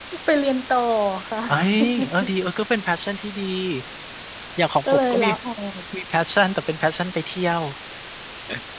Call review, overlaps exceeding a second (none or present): none